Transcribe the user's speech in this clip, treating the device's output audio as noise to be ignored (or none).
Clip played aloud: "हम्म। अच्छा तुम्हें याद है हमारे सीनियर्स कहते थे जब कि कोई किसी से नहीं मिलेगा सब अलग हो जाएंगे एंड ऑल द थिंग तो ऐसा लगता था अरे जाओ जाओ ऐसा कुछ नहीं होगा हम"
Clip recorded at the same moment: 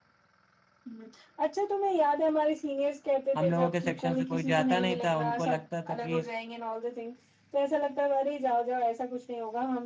हम लोगों के सेक्शन से कोई जाता नहीं था उनको लगता था कि